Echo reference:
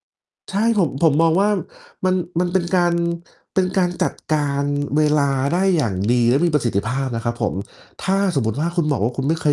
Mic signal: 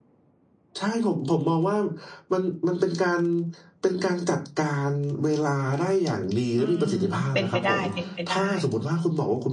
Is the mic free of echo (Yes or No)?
No